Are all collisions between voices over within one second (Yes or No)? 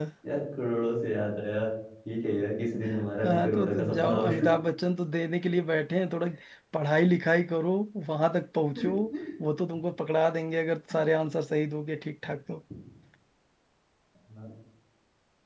No